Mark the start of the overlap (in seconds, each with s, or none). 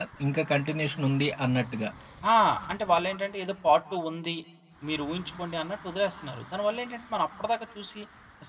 none